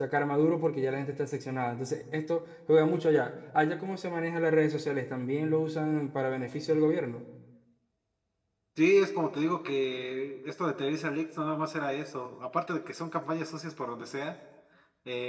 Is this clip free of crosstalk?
Yes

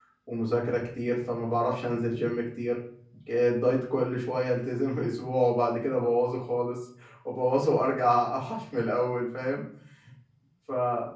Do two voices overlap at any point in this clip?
No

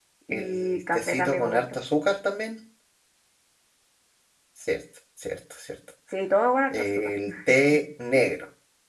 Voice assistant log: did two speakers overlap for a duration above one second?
Yes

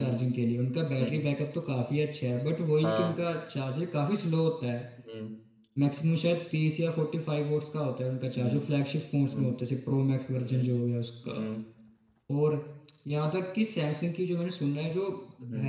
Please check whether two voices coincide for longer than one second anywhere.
No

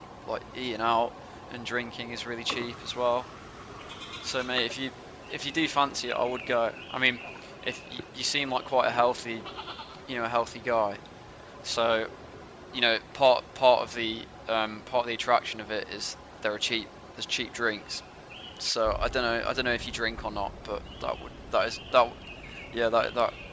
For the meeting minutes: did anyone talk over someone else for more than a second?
No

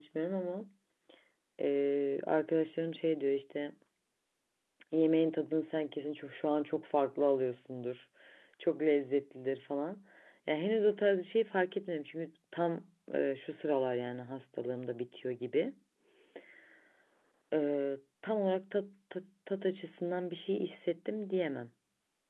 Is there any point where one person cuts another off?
No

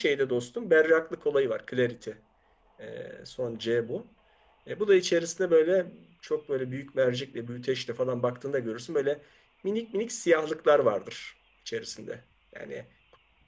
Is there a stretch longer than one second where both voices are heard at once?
No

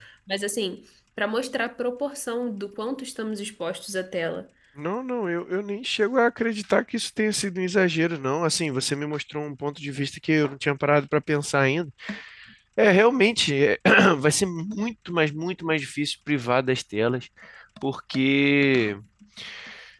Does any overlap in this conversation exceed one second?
No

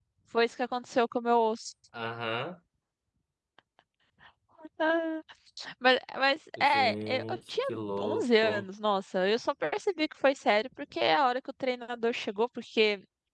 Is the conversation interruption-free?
No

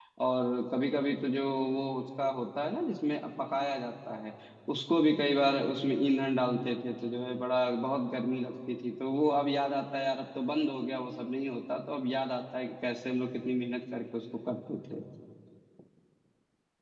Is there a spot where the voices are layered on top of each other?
No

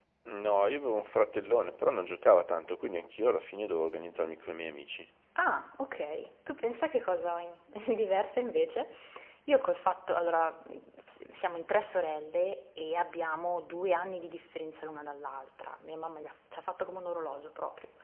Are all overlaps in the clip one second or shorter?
Yes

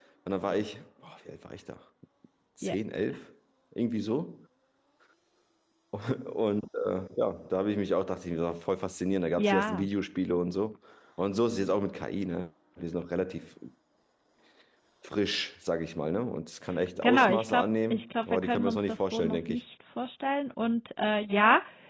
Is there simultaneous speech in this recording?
Yes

